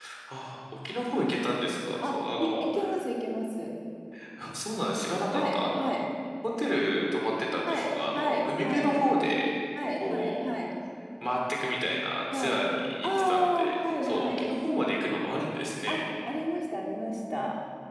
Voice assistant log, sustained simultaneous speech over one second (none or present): present